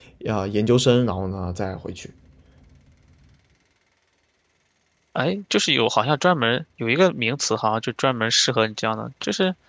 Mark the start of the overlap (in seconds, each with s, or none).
none